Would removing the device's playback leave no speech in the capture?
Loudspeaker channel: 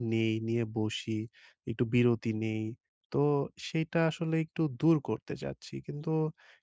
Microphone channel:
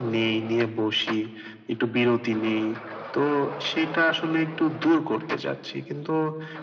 Yes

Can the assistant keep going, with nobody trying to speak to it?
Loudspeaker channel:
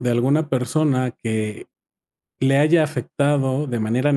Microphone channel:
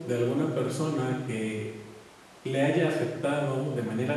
Yes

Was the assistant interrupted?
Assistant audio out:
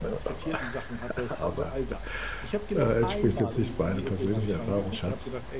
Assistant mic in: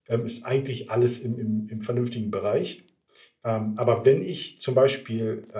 Yes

